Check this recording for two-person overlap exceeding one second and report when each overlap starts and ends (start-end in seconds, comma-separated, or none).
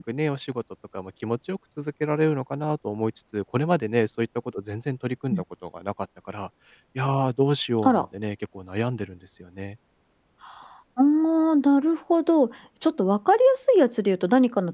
none